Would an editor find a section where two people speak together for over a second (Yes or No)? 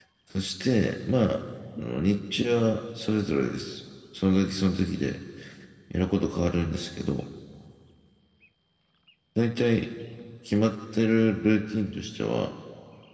No